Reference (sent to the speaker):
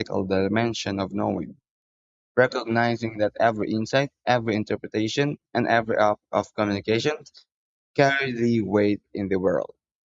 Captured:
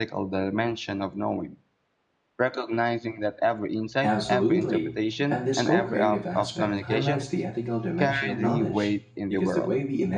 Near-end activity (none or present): present